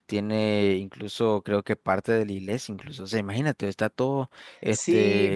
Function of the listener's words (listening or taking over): taking over